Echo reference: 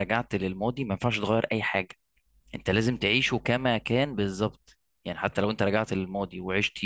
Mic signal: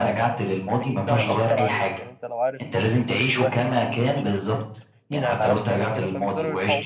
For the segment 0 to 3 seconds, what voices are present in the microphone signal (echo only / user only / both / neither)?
both